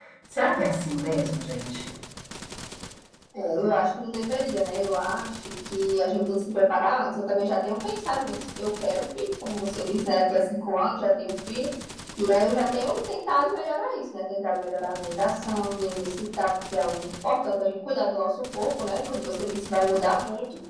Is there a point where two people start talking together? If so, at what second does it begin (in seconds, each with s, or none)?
none